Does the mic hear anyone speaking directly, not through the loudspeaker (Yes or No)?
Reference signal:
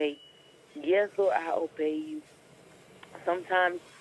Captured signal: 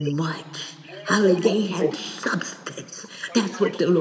Yes